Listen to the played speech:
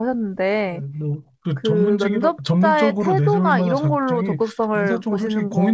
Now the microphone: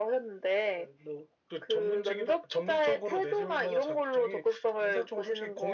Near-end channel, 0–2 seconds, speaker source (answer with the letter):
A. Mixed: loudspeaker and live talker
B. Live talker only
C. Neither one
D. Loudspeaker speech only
D